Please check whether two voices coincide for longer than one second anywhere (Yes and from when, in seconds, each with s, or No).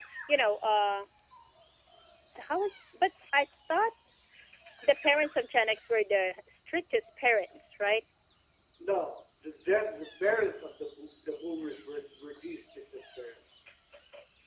No